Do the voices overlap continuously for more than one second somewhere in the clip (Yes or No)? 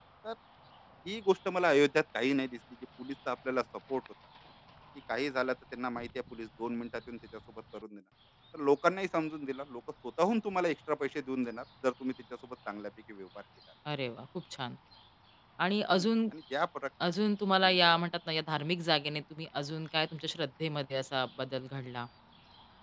No